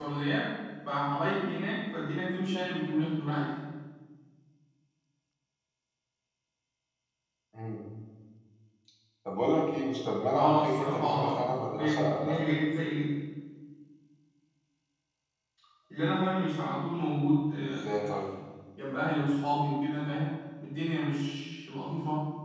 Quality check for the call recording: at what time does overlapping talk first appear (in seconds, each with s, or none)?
10.3 s